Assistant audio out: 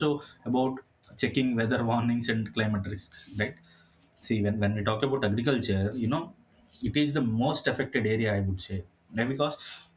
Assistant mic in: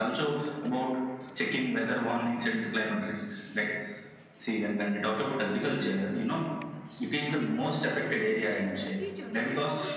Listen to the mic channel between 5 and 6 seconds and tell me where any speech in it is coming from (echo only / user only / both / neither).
echo only